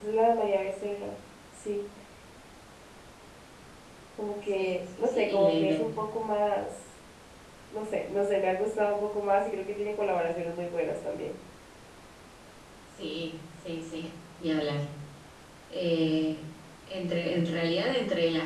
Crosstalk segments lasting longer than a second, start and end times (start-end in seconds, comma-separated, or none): 4.5-6.0